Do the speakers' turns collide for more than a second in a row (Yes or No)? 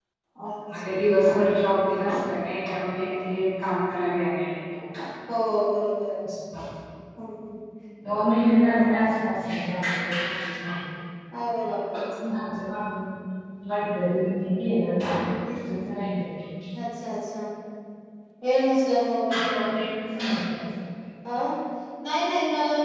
No